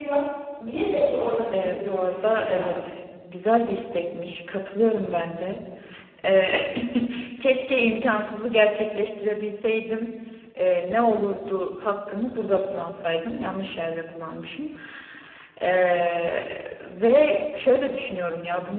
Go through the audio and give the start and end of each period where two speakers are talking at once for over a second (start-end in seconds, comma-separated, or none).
1.5-2.7